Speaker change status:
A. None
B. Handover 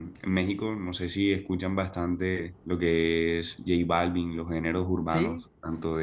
A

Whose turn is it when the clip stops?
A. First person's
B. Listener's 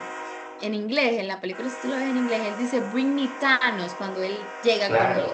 B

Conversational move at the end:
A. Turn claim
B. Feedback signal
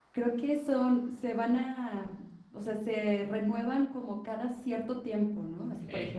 B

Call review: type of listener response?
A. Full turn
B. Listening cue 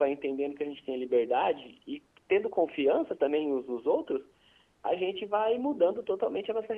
B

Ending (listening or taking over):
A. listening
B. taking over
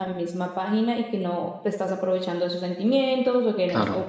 A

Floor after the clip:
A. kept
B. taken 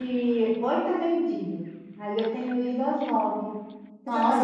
B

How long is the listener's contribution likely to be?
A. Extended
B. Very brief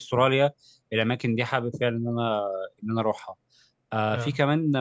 B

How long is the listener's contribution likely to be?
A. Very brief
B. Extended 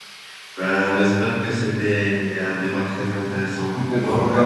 B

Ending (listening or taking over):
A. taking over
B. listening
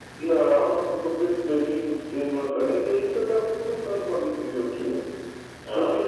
B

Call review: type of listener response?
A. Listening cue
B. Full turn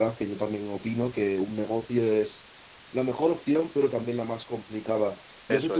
A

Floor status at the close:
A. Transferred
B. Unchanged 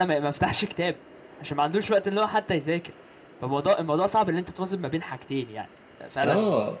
A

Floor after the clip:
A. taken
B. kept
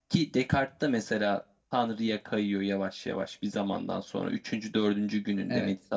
B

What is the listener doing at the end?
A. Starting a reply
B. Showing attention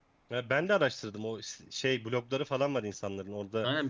A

